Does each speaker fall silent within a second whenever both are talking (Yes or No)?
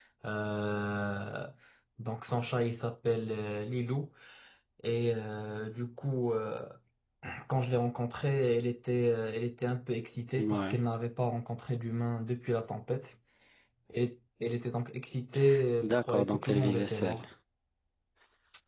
No